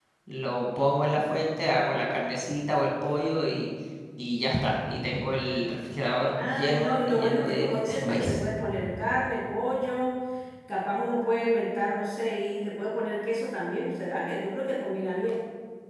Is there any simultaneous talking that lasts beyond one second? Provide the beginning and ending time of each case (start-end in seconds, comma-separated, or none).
6.3-8.4